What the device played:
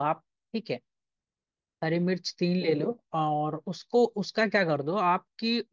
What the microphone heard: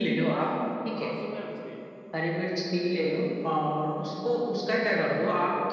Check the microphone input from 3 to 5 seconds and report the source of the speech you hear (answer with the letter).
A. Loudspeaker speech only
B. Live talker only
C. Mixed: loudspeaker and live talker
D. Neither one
A